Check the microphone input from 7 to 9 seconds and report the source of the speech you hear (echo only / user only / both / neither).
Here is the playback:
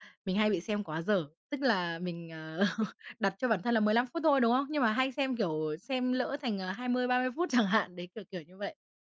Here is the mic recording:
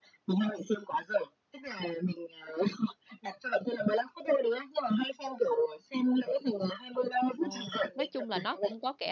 both